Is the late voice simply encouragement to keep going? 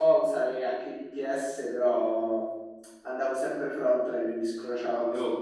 No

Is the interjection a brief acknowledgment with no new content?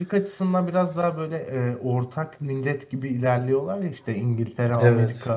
Yes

